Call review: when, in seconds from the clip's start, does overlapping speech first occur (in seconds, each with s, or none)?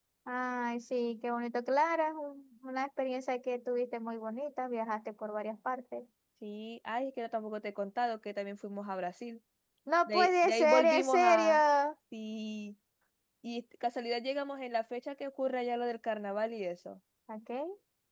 10.1 s